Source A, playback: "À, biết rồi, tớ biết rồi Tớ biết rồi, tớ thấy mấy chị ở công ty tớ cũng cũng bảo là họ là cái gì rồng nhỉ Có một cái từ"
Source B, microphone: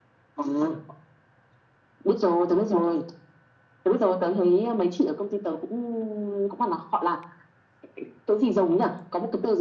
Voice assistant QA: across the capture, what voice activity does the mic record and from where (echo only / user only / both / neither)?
echo only